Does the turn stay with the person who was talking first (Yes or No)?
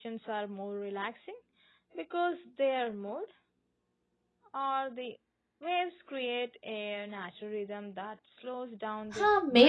No